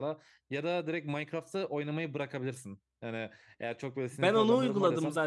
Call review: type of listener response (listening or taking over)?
taking over